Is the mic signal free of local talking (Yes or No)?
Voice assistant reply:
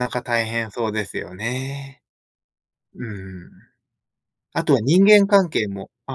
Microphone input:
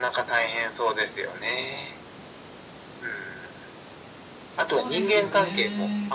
No